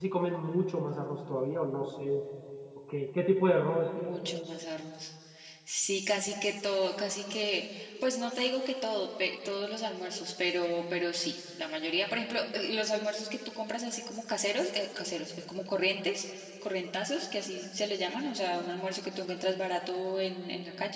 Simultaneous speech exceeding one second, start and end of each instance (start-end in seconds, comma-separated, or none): none